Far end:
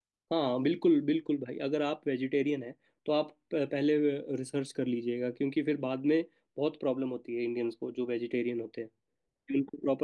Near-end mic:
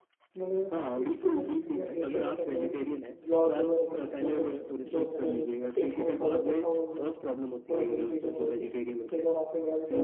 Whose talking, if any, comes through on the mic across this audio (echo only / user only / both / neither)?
both